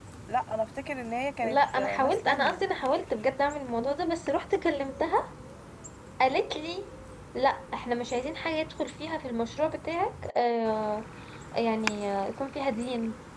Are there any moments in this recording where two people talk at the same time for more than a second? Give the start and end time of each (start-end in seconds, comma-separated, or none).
1.4-2.6